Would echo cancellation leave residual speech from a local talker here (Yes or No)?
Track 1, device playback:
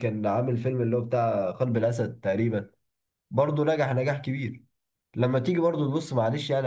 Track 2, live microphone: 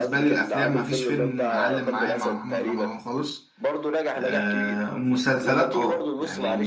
Yes